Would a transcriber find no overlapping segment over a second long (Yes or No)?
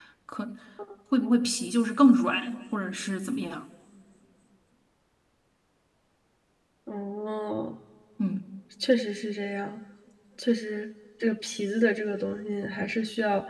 Yes